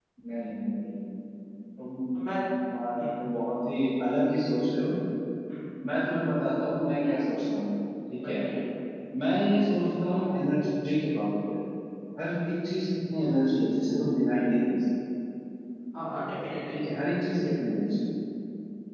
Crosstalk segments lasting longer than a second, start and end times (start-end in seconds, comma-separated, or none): none